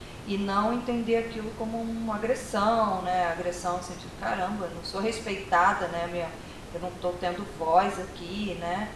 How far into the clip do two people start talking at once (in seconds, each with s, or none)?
none